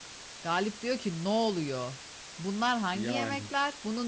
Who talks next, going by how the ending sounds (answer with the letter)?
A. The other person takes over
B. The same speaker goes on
B